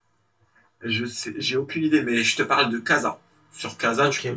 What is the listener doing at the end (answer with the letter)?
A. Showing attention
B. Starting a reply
A